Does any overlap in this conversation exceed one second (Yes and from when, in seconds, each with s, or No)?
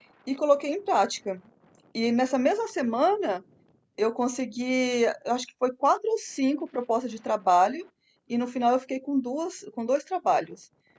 No